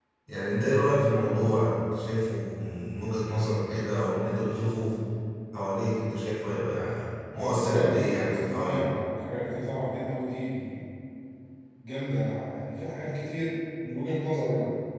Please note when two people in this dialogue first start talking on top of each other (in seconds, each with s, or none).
7.3 s